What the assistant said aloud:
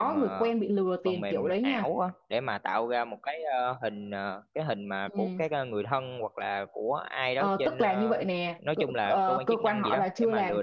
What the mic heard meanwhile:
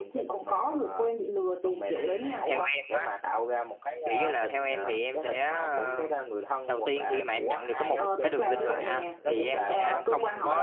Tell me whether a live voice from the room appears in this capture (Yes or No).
Yes